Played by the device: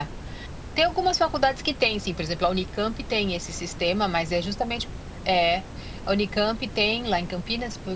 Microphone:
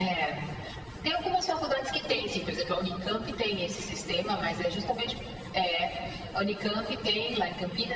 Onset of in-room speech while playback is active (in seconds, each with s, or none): none